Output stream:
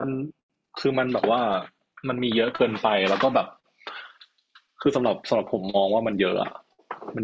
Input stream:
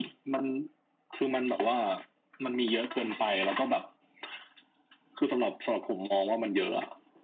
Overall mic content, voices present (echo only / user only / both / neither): echo only